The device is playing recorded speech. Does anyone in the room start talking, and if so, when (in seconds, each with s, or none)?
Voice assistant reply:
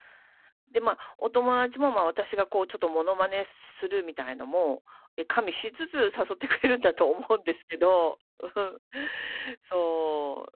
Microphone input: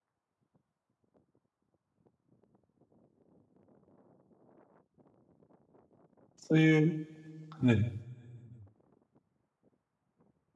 6.5 s